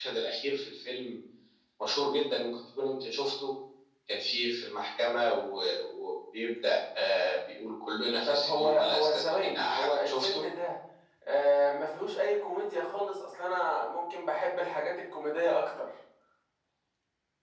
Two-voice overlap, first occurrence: 8.2 s

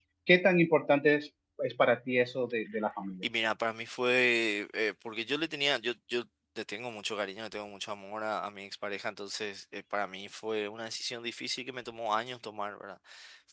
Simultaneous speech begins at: none

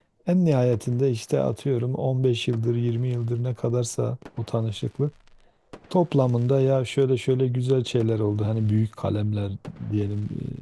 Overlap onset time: none

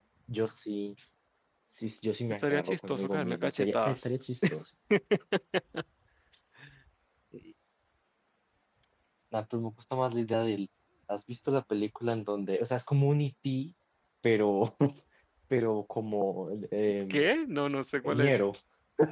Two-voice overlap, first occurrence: 2.3 s

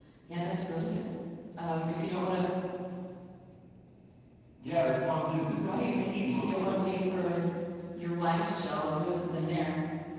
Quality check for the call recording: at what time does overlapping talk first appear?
5.5 s

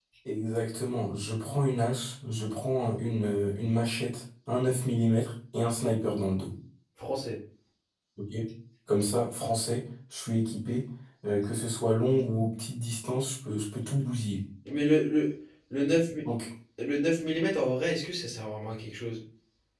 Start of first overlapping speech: none

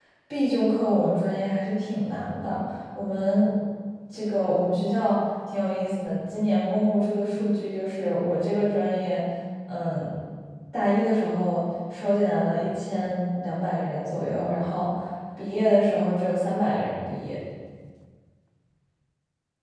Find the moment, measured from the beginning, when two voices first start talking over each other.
none

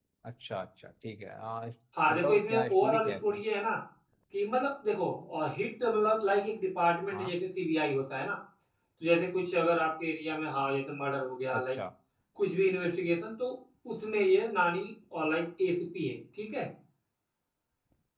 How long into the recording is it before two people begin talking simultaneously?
2.0 s

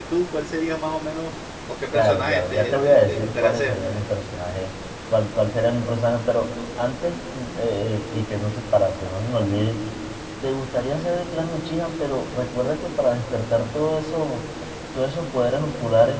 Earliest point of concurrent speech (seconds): 1.9 s

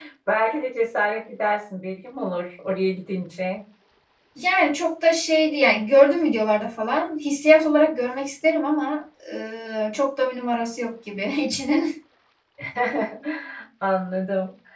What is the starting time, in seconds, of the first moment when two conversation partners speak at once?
none

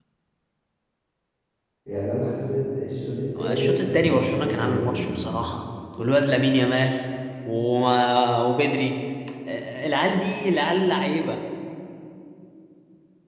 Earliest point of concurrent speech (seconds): 3.4 s

